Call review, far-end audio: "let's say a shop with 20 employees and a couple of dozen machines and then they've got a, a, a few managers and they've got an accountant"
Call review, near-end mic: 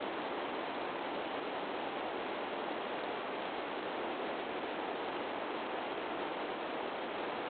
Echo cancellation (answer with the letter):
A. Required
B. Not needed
B